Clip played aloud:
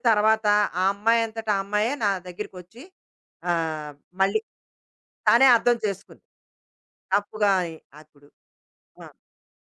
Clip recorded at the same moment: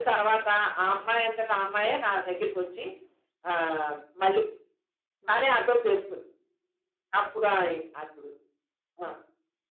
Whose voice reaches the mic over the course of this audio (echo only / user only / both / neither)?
both